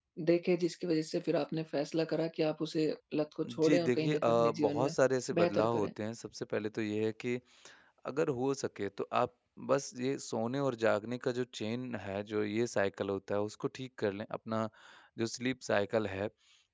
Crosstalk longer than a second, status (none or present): present